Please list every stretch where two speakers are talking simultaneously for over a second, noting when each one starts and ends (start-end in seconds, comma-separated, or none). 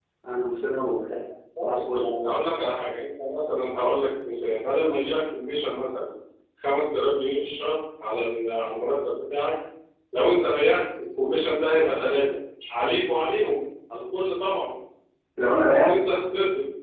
none